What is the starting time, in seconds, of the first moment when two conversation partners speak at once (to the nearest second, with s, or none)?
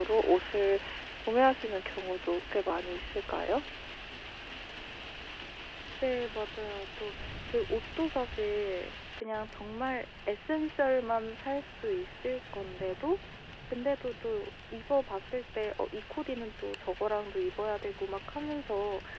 none